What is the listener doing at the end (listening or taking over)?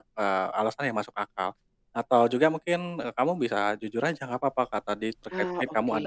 listening